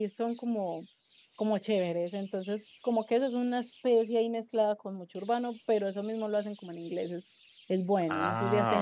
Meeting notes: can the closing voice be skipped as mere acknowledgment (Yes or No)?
Yes